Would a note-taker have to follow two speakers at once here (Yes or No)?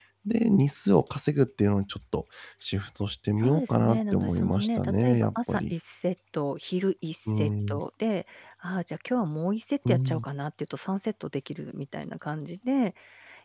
Yes